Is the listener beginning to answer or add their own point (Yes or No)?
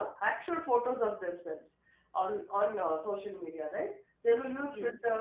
No